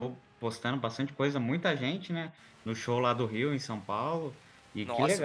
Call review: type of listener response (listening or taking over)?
taking over